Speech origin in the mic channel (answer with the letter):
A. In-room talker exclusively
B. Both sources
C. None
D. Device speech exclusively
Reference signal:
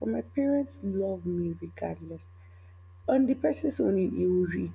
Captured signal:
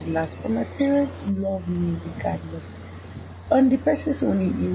D